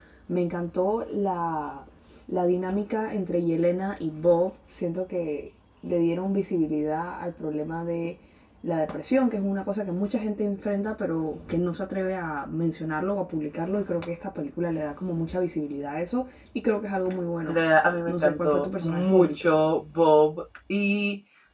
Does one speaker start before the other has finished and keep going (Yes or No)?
Yes